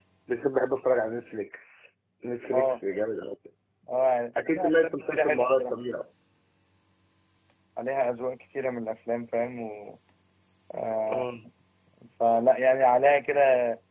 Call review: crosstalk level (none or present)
present